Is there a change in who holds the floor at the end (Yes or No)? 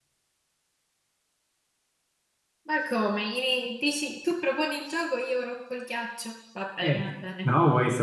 Yes